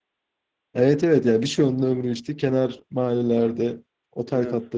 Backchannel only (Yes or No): Yes